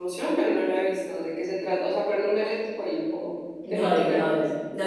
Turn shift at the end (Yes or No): Yes